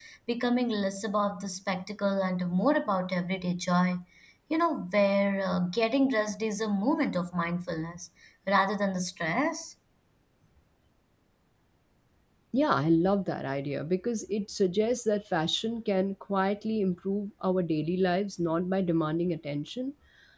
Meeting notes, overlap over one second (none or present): none